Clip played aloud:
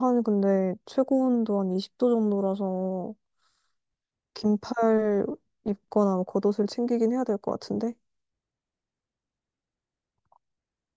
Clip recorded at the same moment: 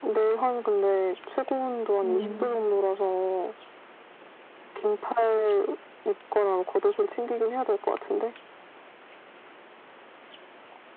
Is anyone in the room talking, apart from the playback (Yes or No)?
Yes